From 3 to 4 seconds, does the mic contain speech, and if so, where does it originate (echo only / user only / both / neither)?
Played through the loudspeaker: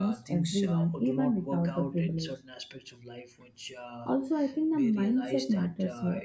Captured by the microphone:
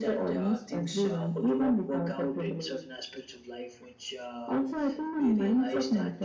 echo only